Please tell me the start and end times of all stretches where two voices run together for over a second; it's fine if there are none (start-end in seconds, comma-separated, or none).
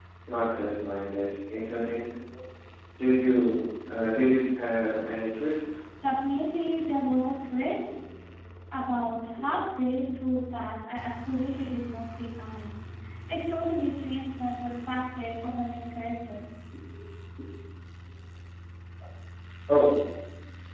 none